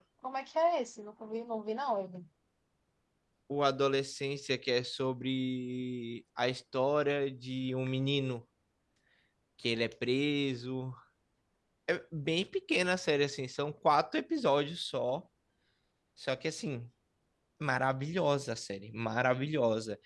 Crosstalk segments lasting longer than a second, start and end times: none

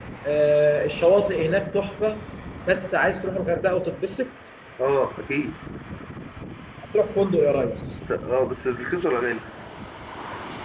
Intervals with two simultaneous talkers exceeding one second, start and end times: none

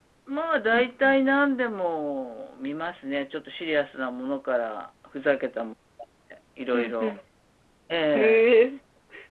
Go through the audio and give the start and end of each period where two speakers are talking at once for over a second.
none

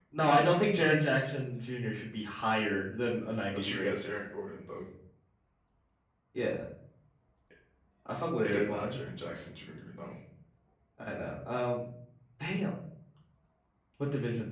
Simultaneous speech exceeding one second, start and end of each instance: none

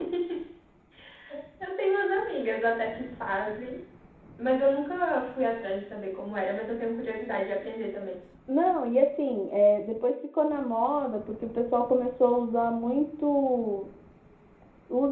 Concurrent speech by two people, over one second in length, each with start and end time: none

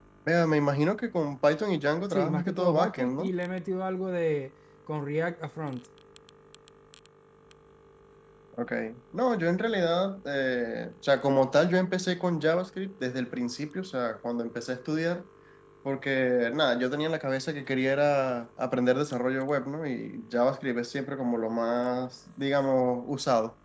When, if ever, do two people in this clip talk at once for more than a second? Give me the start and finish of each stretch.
2.1-3.3

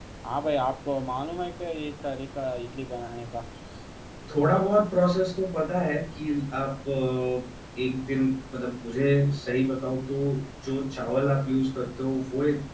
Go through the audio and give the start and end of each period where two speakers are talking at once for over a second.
none

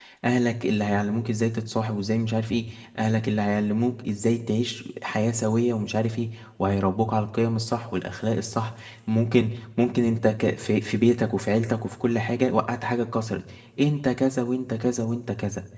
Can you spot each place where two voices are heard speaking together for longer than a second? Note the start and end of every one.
none

